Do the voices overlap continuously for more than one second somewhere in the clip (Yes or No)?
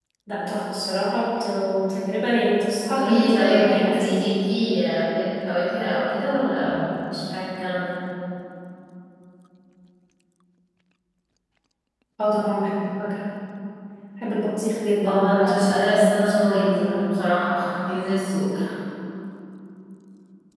Yes